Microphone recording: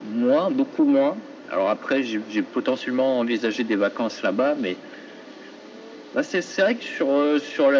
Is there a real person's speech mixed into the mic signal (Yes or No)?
No